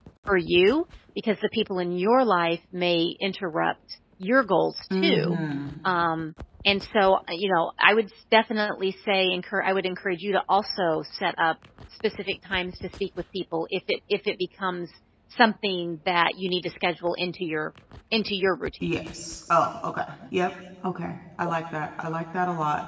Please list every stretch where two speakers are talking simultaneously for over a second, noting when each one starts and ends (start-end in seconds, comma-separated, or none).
none